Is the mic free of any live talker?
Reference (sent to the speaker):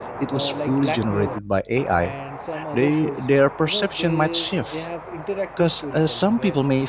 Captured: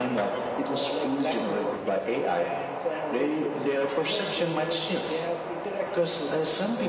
Yes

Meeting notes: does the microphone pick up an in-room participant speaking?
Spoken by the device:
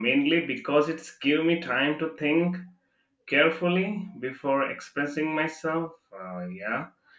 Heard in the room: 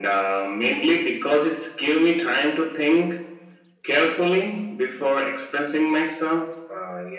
No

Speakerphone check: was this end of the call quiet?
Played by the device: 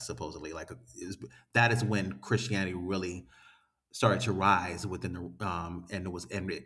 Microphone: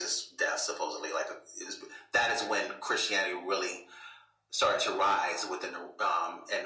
Yes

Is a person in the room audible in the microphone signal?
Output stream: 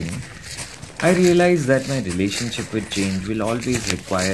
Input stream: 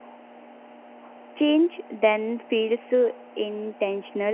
Yes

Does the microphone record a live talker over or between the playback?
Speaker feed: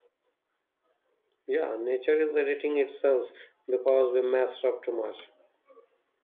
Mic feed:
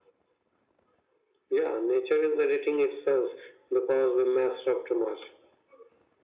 No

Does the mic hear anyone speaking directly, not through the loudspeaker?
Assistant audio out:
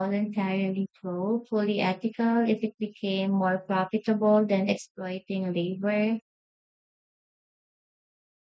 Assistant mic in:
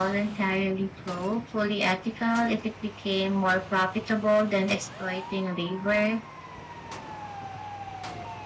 No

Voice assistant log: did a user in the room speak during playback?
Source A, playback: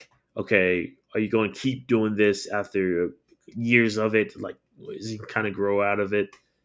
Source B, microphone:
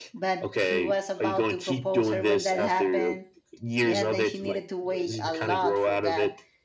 Yes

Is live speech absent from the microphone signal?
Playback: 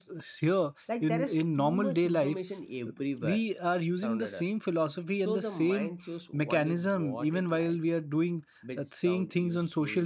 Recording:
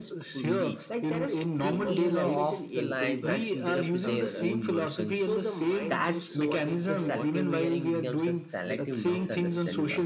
No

